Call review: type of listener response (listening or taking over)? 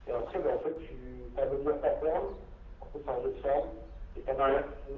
listening